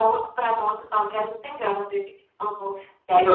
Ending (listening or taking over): taking over